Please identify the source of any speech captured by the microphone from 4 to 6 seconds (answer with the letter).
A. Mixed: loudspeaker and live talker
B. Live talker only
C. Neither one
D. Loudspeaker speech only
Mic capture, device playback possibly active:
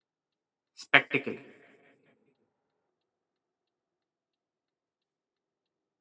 C